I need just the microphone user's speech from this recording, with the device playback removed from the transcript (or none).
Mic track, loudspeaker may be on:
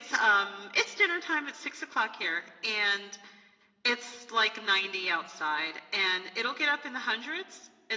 none